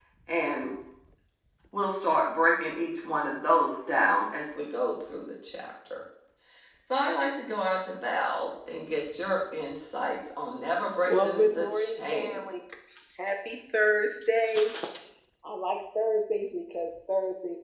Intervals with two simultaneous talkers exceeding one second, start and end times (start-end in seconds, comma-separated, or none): 11.1-12.4